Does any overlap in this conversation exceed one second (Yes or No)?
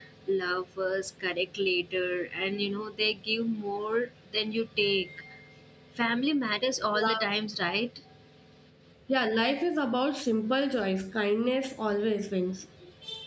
No